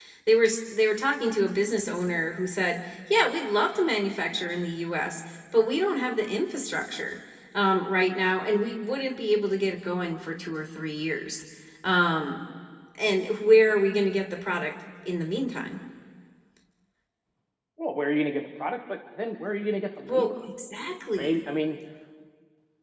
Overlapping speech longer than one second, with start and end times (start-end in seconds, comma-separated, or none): none